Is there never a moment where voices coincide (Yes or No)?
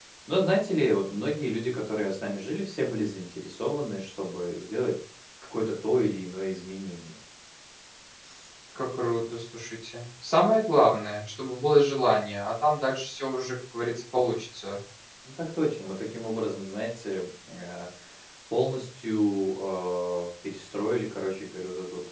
Yes